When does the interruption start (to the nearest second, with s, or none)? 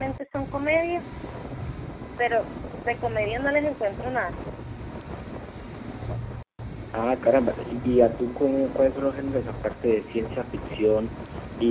none